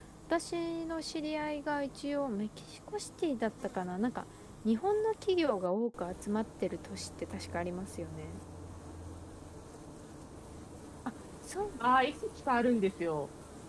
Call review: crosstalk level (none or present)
none